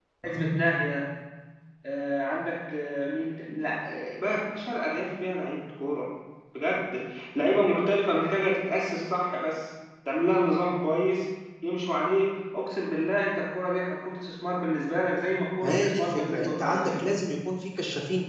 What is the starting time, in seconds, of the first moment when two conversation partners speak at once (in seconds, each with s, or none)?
15.6 s